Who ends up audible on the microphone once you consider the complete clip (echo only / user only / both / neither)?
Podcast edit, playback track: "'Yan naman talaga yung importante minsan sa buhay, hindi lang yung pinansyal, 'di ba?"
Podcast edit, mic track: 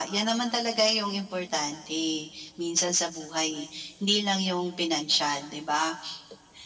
echo only